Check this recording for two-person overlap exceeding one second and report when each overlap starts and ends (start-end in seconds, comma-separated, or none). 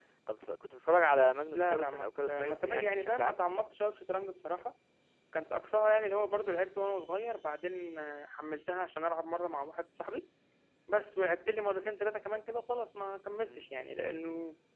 1.5-3.5